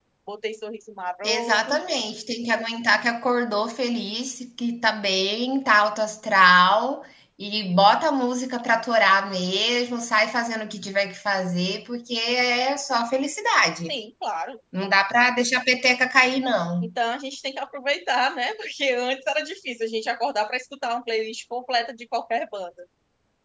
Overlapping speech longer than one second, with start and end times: none

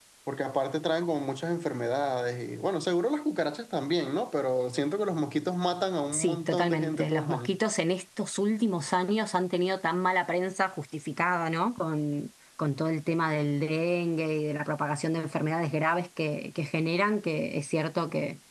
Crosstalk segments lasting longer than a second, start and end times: 6.1-7.5

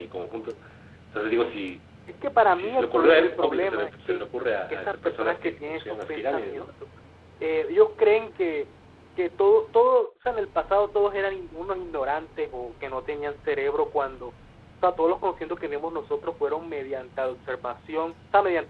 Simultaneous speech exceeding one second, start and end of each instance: 2.5-4.2, 4.7-6.7

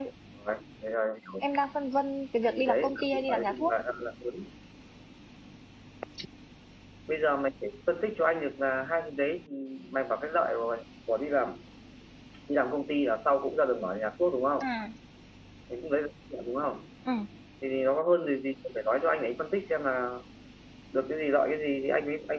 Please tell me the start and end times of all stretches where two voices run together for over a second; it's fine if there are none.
2.5-3.7

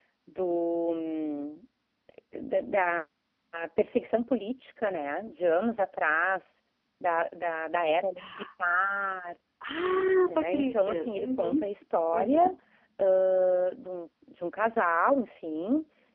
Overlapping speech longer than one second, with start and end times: 10.2-11.7

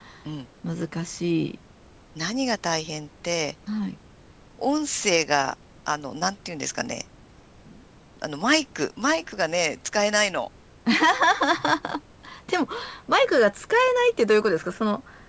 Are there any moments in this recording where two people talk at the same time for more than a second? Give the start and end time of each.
none

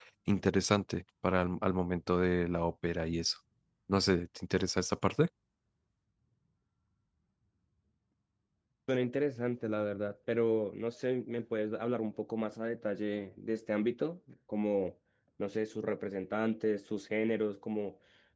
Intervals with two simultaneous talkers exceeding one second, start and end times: none

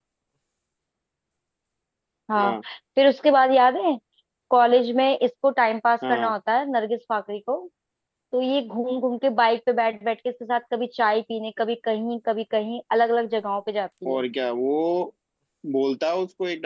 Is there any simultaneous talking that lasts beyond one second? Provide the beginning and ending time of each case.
none

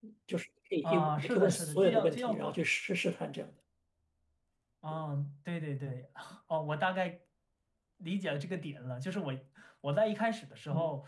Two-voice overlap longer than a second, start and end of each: 0.8-2.4

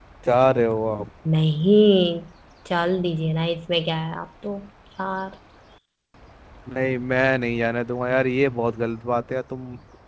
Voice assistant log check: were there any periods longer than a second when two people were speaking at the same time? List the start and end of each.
none

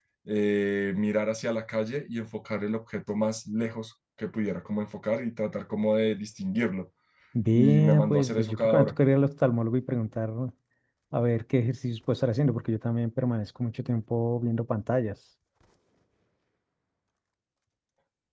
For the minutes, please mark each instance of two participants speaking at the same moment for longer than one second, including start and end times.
7.6-8.9

